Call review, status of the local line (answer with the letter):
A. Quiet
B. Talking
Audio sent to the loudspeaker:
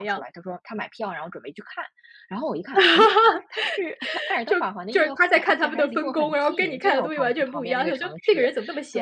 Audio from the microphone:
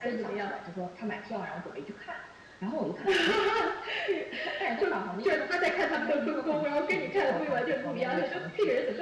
A